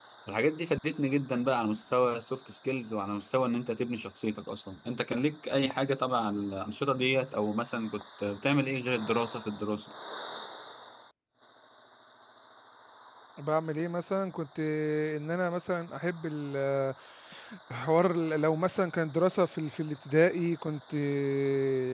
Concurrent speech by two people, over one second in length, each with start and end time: none

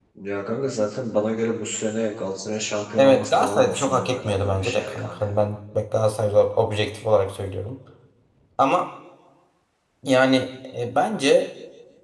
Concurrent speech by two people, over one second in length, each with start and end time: 3.0-5.2

